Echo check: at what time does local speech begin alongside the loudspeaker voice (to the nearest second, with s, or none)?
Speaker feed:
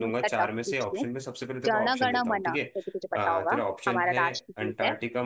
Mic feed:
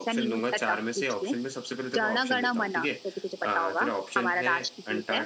none